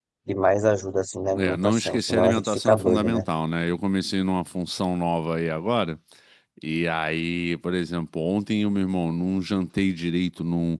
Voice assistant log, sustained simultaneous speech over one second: present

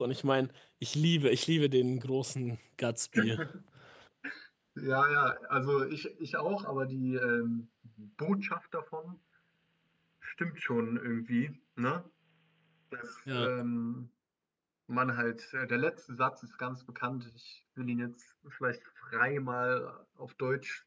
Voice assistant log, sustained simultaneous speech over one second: none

